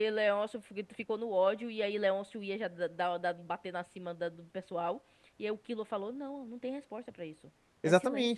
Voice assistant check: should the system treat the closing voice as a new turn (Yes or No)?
Yes